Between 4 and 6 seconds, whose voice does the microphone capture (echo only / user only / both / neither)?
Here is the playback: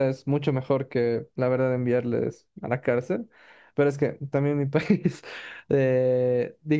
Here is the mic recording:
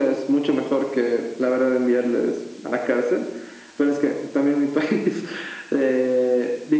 echo only